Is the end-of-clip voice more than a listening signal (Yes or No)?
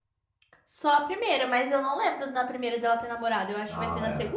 Yes